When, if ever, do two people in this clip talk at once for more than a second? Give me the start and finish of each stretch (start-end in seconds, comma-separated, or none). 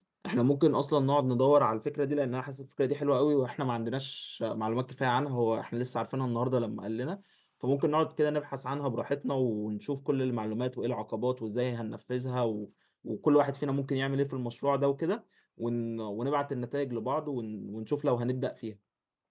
none